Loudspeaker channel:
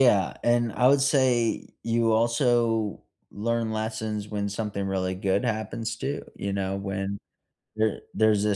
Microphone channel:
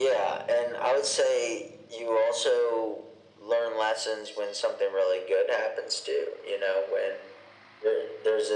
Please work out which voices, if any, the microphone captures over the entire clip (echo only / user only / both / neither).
echo only